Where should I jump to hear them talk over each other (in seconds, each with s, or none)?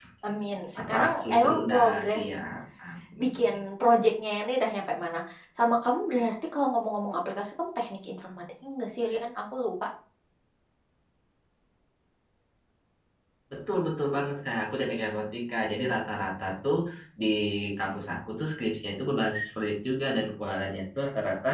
0.8 s